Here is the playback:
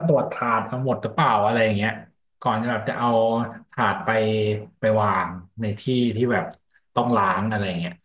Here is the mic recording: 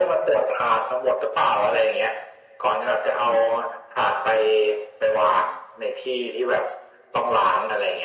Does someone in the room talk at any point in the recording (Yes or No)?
No